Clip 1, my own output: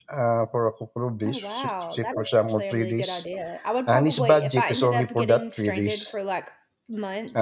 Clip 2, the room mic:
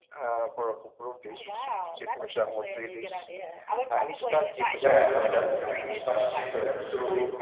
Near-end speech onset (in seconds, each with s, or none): 4.8 s